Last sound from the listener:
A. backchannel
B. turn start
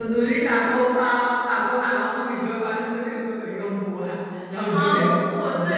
B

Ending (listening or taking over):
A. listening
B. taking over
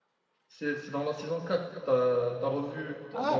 B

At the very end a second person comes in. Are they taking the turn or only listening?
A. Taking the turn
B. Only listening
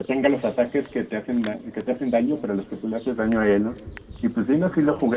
B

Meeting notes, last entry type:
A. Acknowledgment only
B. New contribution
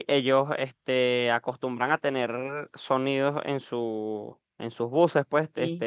A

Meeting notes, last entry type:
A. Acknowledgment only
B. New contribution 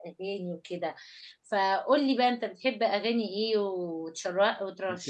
B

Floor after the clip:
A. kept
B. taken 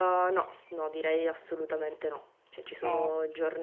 A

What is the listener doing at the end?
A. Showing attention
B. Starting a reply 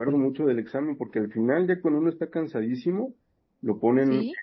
A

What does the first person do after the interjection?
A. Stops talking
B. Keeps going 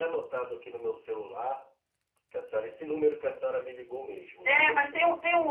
A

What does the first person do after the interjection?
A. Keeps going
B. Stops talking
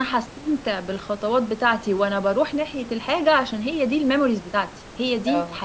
A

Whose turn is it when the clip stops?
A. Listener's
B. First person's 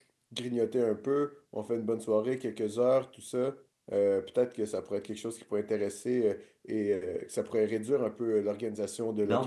A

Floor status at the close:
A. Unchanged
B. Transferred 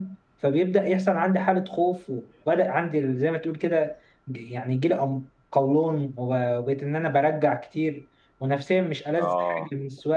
A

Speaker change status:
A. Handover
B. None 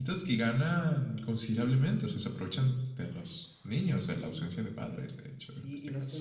A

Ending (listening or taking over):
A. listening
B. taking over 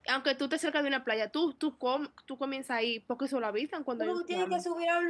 B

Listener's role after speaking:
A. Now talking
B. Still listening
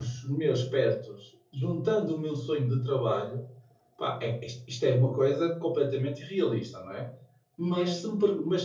B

